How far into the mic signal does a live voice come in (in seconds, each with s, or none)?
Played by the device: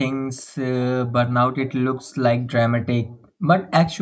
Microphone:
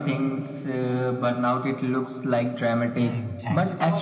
2.9 s